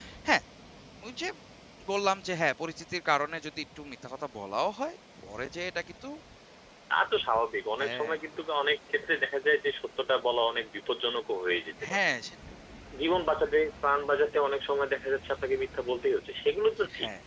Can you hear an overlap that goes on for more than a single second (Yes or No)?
No